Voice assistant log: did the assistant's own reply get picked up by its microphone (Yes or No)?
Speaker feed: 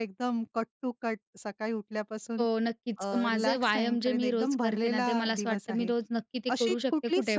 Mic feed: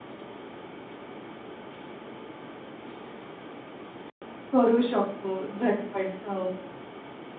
No